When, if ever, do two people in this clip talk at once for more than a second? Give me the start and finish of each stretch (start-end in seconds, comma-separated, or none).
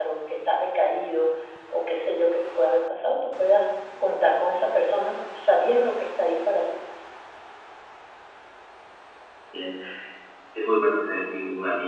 none